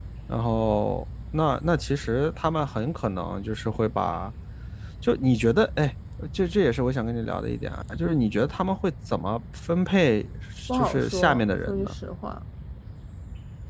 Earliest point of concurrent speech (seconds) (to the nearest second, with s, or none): 11 s